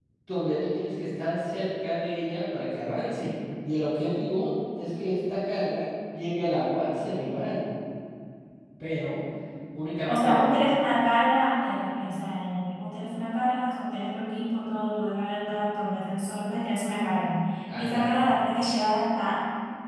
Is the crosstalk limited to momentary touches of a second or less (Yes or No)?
Yes